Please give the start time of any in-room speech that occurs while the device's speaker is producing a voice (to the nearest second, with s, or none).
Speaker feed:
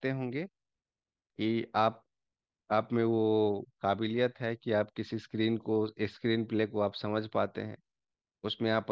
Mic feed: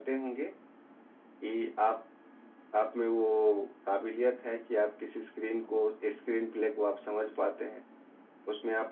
none